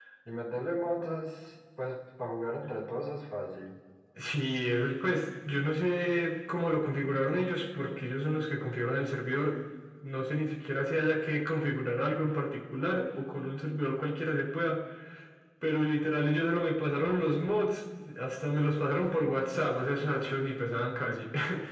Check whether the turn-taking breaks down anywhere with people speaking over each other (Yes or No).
No